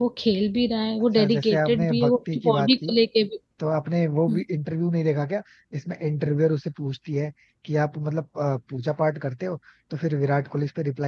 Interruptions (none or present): present